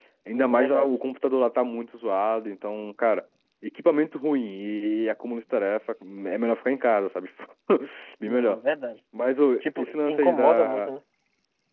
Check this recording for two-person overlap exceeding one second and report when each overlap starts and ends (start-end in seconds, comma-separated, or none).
9.6-10.9